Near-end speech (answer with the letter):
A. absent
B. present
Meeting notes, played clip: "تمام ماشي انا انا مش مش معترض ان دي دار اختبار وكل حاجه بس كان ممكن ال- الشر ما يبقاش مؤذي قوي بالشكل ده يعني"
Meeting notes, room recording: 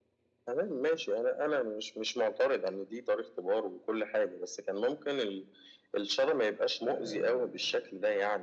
B